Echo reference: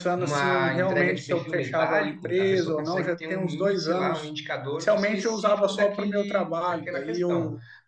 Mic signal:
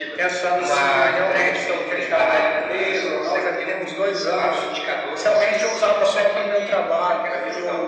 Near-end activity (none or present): none